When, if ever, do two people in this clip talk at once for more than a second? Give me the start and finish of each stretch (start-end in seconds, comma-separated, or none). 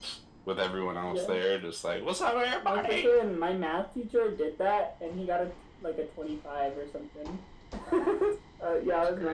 none